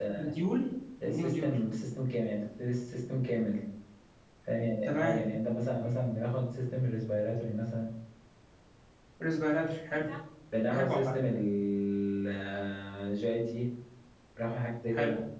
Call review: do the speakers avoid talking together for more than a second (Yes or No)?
Yes